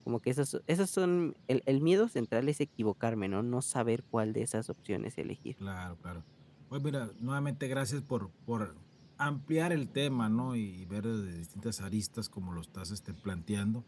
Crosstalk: none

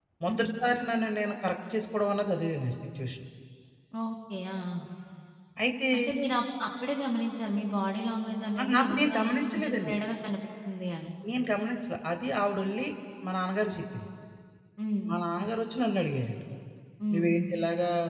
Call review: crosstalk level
present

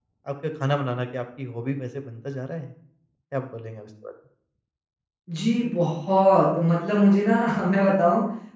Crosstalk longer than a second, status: none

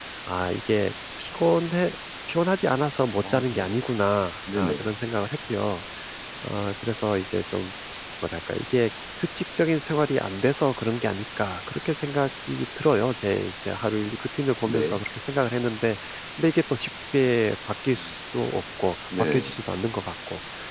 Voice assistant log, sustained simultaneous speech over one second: none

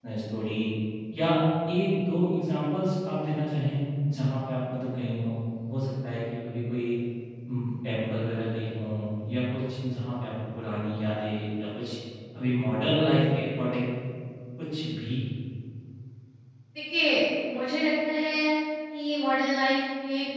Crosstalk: none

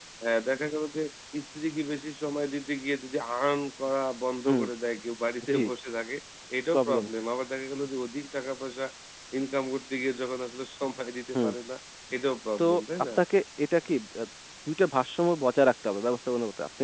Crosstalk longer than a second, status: none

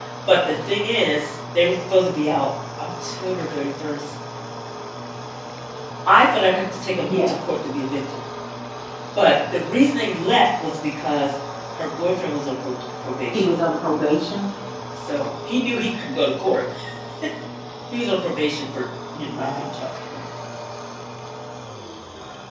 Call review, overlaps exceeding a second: none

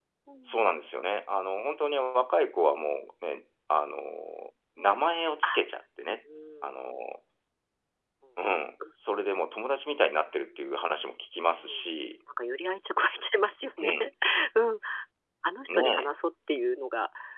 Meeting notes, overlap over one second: none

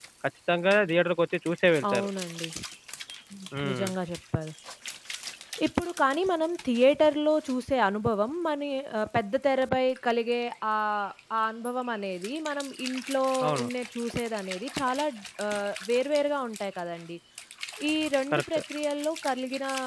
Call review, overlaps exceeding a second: none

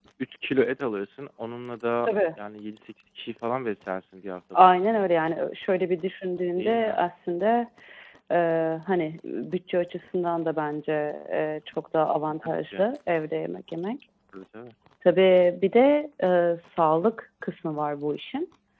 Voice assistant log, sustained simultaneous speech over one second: none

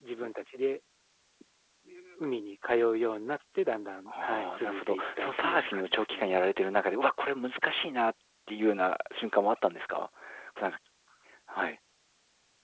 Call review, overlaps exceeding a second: present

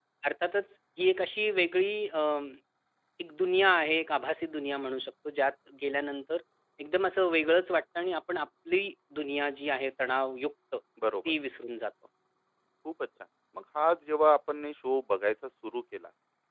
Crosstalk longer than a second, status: none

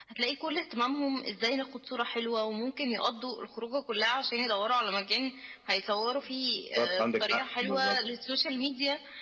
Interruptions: present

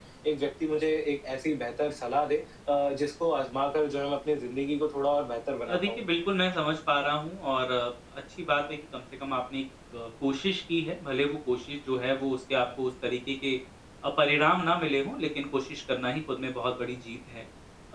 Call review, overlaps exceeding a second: none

